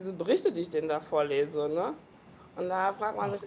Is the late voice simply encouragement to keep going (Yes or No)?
Yes